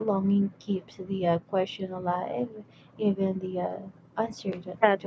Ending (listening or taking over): taking over